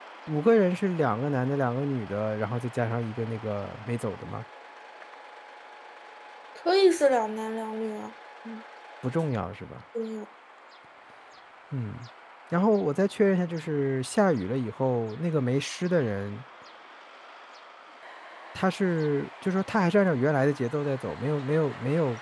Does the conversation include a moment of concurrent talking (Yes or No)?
No